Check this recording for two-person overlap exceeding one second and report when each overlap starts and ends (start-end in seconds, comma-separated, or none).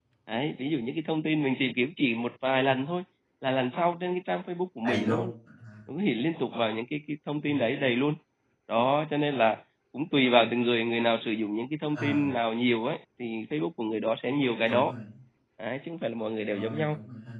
none